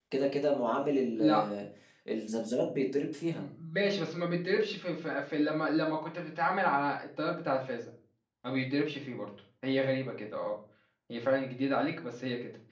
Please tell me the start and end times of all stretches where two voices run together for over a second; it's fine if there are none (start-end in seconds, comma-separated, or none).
none